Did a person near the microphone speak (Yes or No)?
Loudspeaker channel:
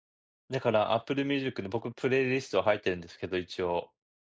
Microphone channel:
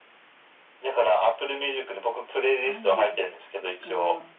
Yes